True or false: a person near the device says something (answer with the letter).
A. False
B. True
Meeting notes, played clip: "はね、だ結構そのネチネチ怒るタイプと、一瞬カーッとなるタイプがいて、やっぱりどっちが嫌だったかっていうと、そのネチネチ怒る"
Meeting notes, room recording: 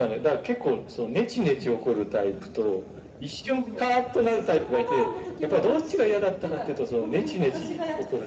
B